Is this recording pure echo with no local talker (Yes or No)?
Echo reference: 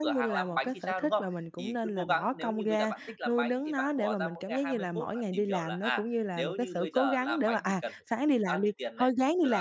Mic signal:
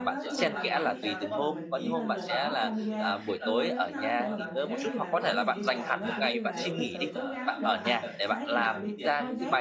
No